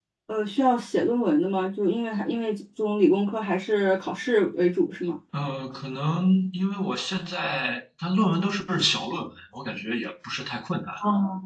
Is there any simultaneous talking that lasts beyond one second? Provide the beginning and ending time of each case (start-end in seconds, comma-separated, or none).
none